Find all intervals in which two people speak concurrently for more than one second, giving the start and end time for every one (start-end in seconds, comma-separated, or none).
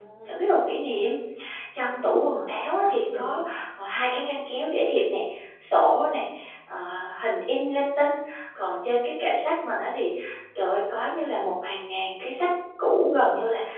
1.8-3.4